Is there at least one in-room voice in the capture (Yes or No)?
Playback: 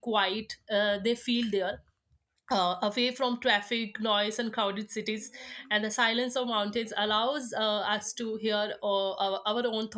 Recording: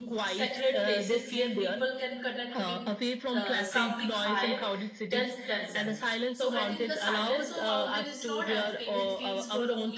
Yes